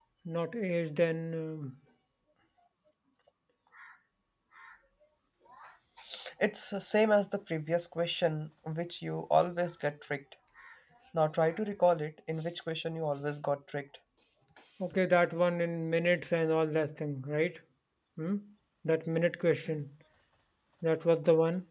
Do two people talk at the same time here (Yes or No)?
No